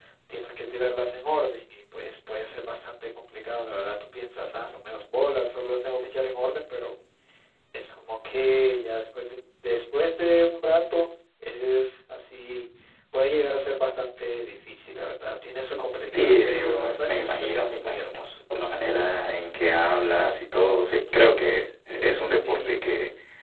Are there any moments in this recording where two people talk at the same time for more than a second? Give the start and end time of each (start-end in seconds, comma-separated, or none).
16.1-18.2